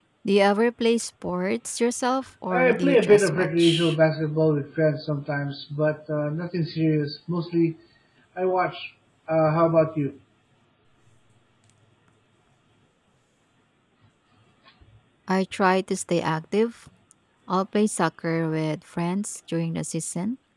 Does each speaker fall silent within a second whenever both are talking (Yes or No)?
No